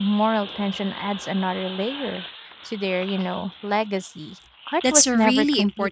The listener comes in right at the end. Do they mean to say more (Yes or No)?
Yes